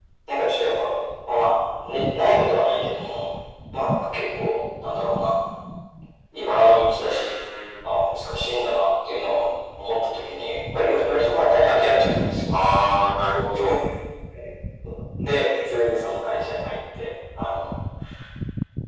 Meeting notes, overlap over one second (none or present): none